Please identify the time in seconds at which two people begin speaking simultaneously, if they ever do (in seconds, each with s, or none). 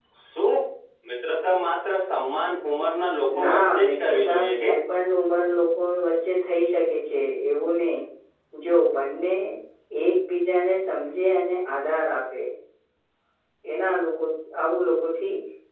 3.3 s